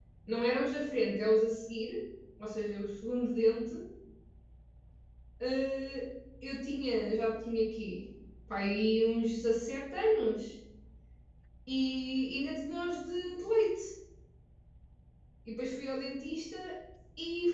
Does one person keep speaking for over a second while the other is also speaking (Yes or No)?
No